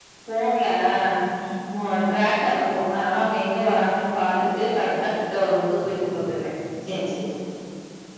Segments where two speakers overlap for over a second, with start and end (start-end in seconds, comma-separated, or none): none